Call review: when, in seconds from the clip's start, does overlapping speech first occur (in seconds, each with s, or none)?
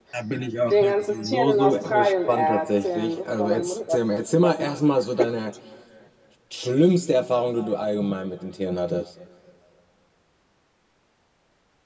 0.7 s